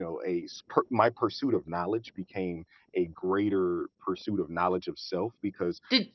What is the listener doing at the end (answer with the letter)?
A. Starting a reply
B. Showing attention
B